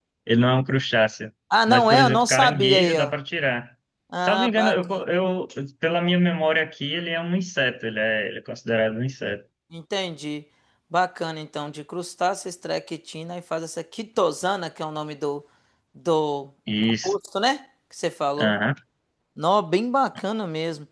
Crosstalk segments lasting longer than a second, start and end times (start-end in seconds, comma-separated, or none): 1.7-3.1